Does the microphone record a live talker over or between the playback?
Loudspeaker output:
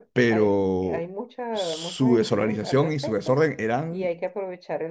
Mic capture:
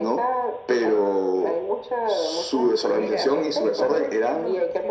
Yes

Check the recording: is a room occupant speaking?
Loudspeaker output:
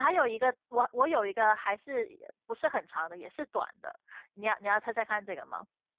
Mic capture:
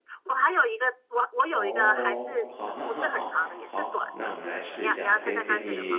Yes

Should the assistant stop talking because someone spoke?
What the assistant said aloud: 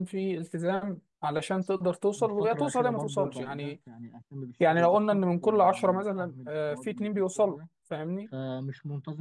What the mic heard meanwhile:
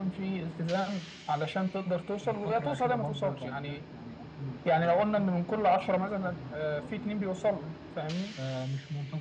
No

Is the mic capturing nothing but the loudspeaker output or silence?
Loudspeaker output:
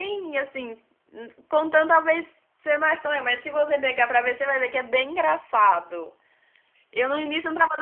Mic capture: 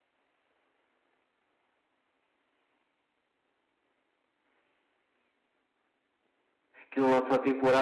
No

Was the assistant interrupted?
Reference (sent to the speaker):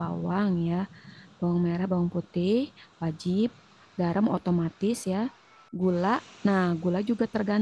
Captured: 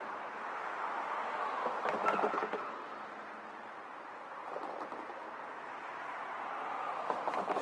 No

